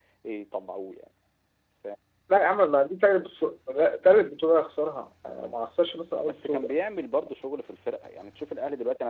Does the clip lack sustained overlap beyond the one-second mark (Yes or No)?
Yes